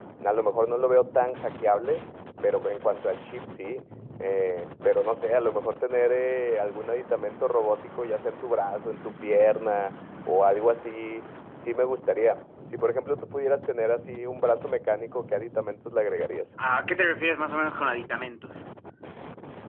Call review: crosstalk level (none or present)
none